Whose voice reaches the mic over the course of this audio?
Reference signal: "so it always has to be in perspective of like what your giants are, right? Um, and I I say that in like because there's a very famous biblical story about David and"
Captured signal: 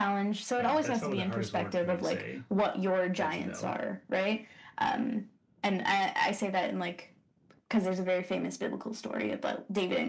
both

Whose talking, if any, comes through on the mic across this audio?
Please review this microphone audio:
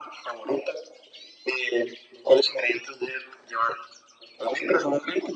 echo only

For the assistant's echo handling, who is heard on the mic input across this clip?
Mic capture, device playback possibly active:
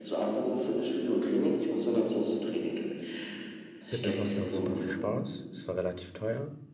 both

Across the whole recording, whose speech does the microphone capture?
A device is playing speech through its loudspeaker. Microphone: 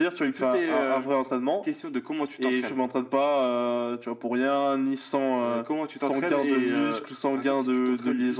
echo only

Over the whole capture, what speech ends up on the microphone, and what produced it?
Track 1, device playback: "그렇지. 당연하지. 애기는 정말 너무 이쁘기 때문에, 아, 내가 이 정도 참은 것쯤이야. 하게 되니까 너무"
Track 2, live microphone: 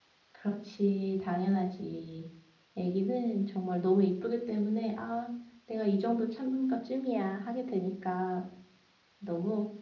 echo only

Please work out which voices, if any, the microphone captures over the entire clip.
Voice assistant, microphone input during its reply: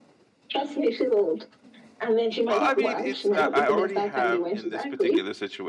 both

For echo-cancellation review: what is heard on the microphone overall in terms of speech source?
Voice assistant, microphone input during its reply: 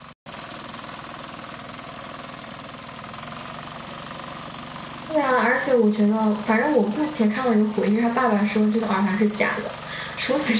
user only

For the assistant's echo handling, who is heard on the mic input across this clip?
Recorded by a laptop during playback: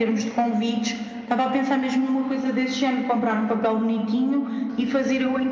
echo only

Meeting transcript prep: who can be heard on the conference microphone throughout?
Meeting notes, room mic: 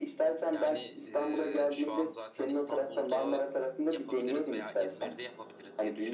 both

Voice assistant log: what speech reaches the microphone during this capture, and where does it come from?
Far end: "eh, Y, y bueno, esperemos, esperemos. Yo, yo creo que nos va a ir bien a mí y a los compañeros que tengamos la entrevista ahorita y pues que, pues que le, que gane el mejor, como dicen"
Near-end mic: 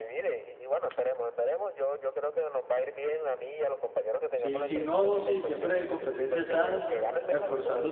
both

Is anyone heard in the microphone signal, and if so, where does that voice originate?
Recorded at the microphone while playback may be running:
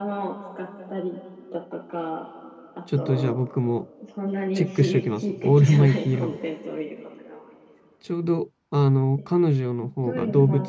both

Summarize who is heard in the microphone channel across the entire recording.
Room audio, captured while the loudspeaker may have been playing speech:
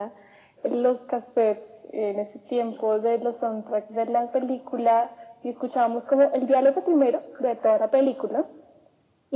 echo only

